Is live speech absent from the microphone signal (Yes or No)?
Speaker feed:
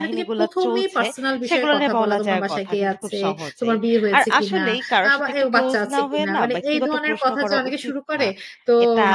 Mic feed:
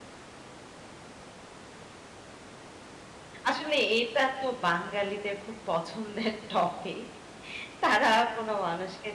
No